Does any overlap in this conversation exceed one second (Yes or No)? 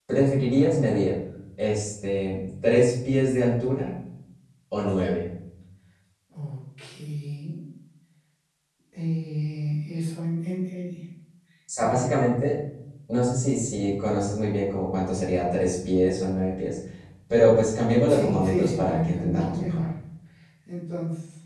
Yes